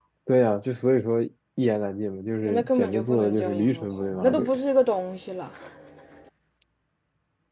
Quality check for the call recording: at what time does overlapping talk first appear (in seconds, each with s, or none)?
2.5 s